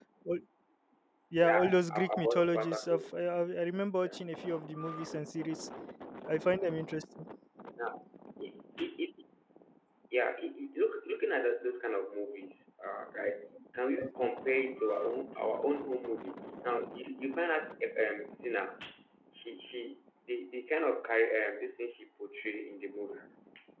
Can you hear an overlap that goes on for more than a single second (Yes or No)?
Yes